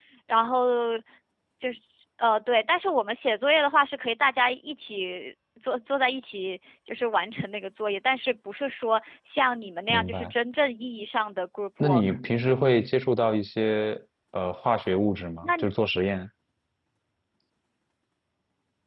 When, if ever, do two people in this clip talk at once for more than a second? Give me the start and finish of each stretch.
none

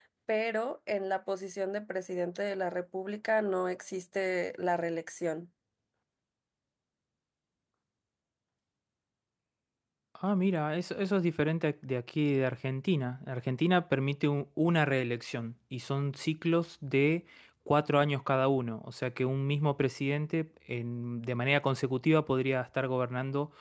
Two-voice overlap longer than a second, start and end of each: none

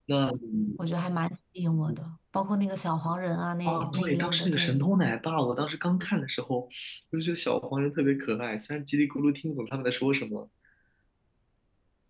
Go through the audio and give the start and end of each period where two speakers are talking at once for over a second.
3.6-4.9

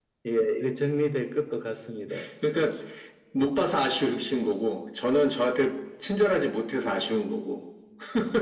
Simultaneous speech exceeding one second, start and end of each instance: none

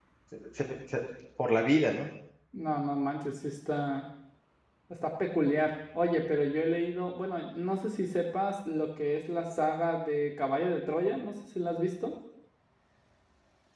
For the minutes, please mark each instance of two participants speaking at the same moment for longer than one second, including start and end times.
none

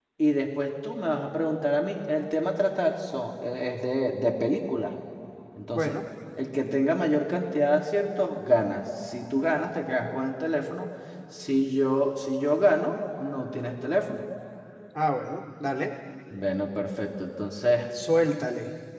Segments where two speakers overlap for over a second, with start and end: none

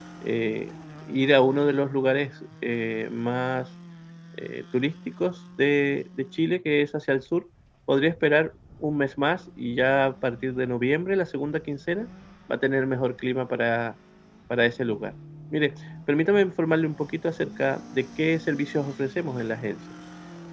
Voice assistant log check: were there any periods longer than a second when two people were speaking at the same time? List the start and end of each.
none

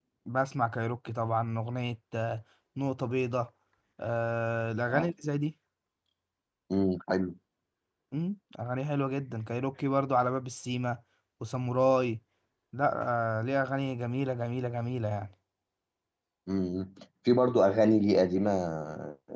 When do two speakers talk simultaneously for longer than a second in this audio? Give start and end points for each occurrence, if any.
none

